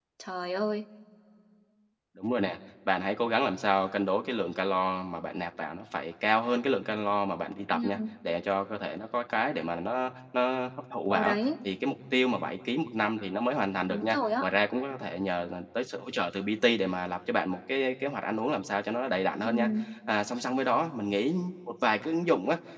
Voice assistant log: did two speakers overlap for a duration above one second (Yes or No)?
No